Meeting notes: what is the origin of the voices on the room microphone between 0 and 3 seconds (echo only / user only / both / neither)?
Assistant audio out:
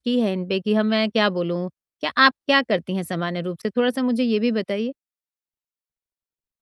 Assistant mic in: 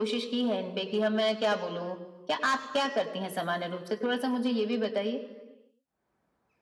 echo only